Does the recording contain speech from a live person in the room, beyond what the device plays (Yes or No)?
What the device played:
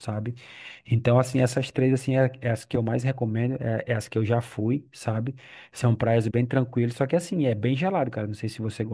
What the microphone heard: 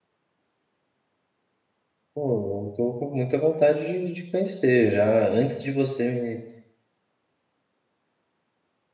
Yes